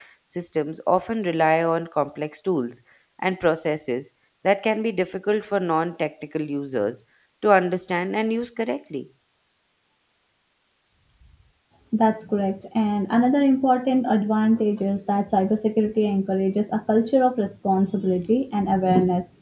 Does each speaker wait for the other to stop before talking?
Yes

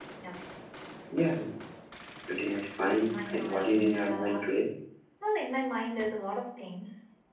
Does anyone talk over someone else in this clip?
Yes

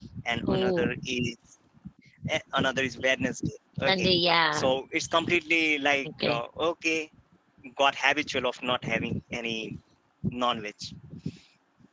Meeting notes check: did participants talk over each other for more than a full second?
No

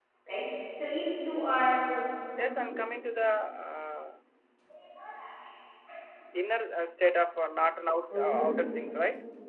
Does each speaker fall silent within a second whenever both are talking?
Yes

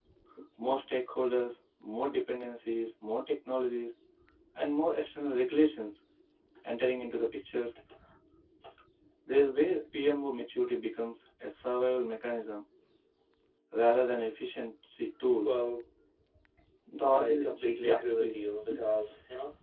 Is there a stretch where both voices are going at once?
Yes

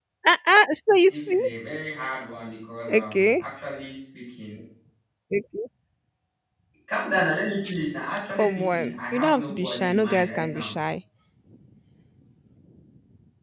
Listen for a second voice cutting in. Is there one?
Yes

